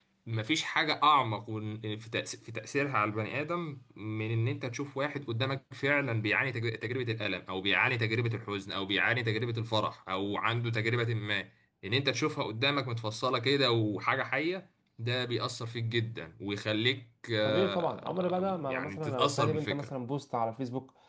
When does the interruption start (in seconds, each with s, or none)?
17.4 s